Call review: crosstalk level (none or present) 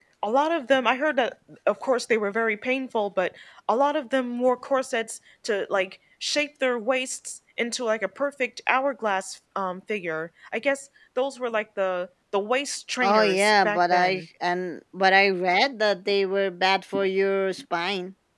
present